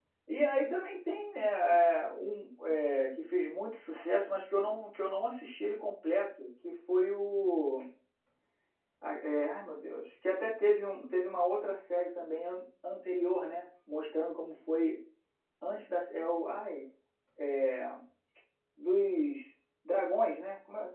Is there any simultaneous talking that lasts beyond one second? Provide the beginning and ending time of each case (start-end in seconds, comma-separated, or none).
none